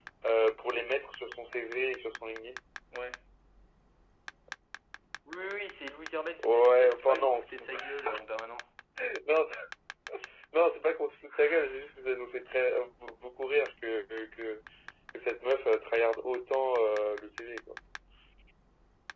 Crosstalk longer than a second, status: present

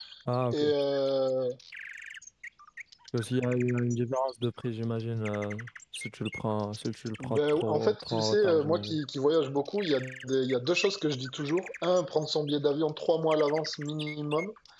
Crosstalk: present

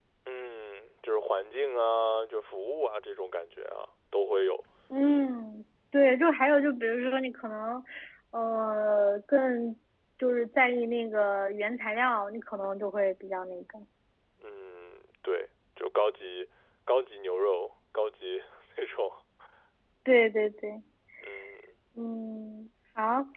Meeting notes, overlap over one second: none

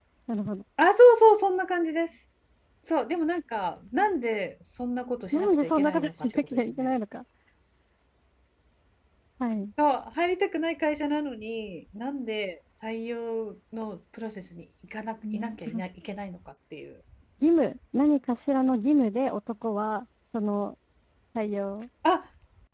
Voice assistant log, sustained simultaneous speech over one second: present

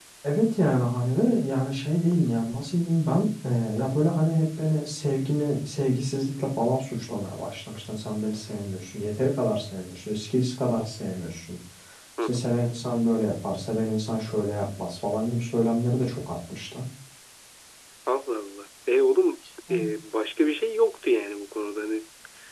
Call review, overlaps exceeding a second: none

